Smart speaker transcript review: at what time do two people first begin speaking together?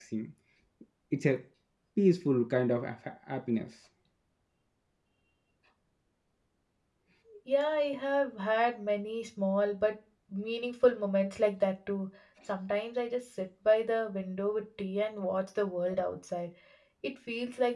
none

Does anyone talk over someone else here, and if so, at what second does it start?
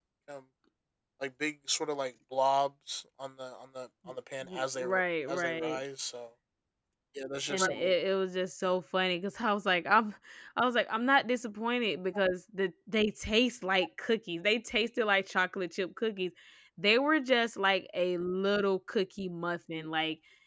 4.5 s

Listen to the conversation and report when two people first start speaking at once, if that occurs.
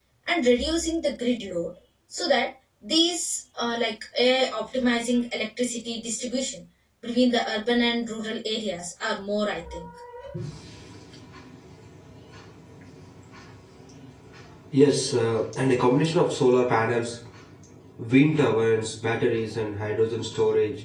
none

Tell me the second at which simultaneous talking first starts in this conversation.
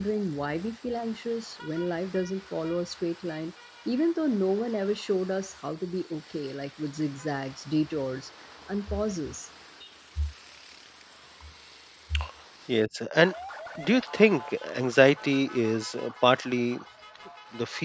none

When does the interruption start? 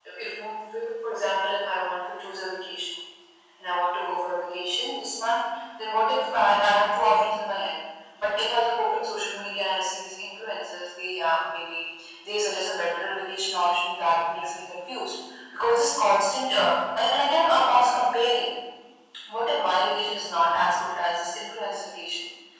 none

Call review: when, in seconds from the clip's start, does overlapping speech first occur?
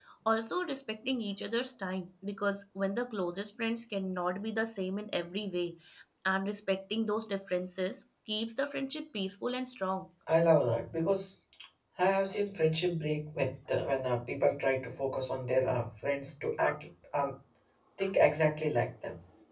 none

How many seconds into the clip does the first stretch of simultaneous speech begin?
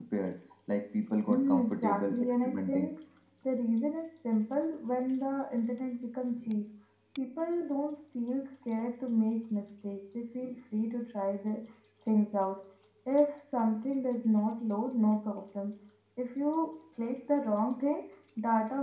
1.3 s

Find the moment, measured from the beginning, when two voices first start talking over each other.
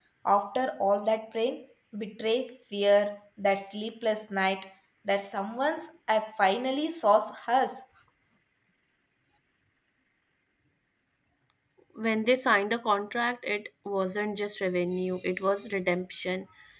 none

